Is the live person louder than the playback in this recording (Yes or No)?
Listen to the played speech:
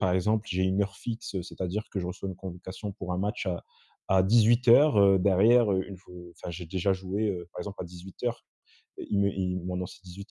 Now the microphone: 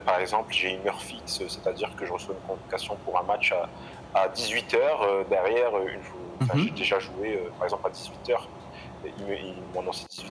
Yes